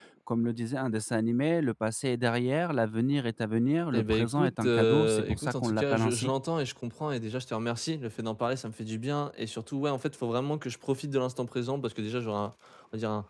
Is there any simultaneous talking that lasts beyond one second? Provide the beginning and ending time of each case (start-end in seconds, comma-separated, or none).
3.9-6.3